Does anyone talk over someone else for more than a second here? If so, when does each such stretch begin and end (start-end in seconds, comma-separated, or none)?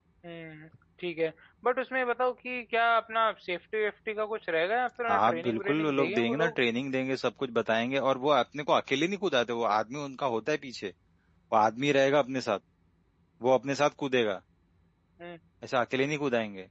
5.1-6.5